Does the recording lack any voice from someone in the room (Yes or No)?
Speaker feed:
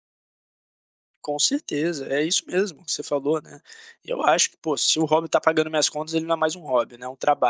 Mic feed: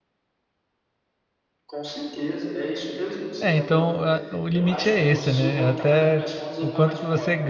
No